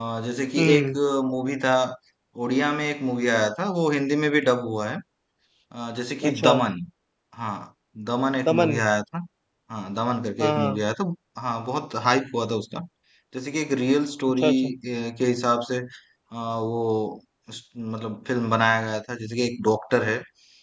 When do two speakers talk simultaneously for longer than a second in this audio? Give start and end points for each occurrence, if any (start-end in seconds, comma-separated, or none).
none